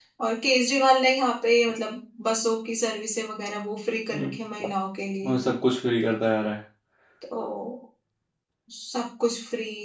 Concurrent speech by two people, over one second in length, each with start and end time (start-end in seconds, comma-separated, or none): none